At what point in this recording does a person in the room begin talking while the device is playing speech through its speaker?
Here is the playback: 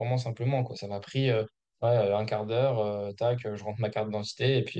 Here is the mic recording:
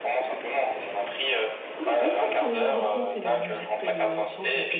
1.8 s

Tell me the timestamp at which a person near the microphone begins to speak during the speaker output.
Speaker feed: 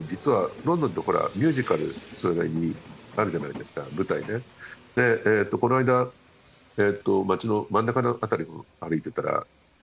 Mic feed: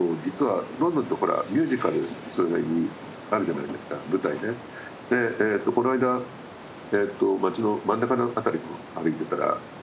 none

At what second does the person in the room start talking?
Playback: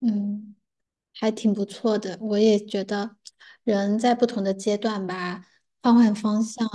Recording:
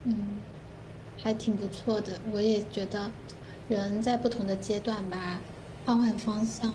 none

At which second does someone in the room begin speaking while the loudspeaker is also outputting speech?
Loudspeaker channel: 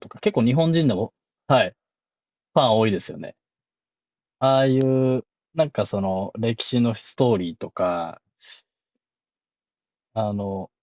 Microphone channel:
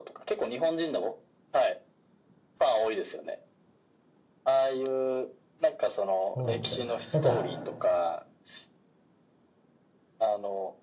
6.2 s

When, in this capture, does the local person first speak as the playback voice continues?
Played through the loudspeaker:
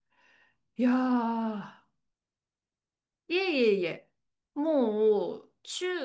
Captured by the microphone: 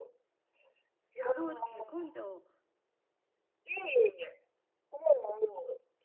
1.1 s

